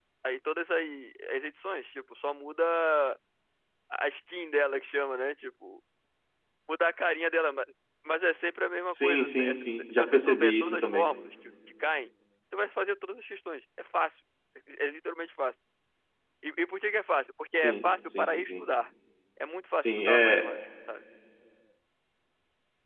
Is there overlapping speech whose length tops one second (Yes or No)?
Yes